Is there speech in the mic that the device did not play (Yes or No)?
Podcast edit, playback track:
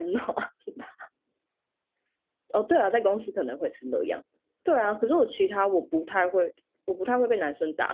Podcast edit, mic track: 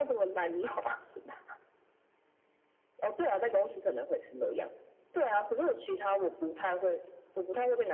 No